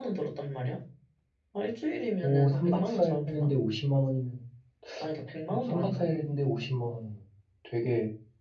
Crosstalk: present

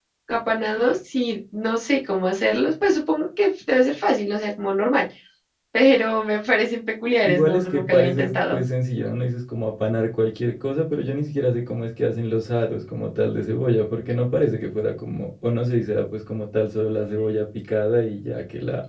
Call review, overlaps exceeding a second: present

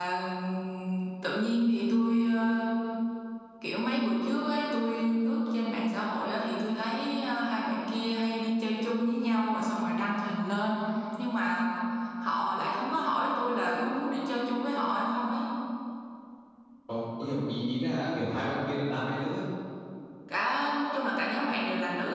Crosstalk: none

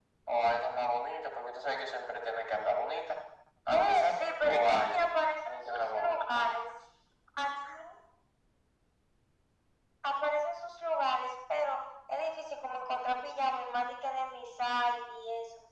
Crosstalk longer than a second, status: present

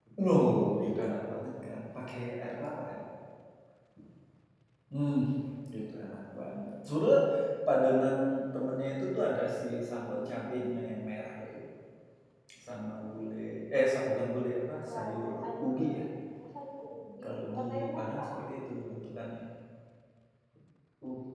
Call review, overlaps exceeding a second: present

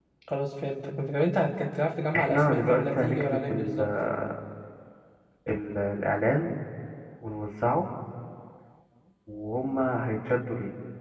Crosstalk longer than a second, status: present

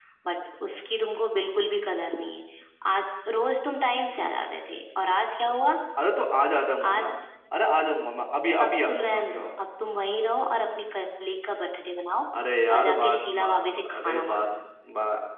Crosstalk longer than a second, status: present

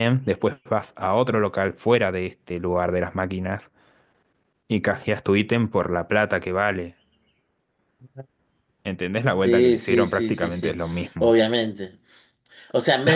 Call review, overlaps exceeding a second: present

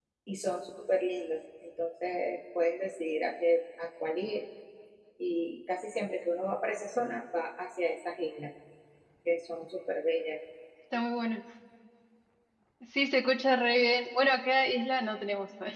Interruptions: none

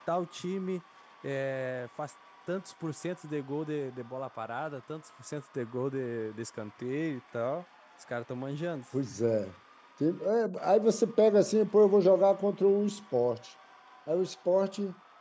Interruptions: none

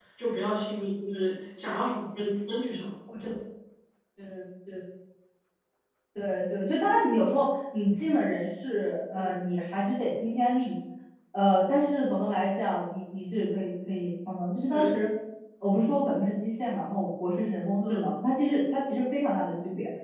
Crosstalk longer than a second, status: none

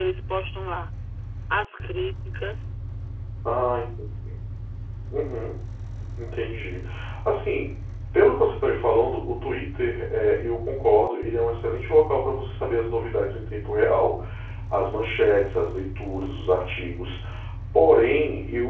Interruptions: none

